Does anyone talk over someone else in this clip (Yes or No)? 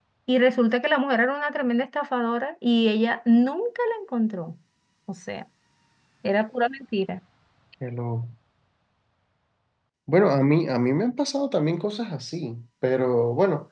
No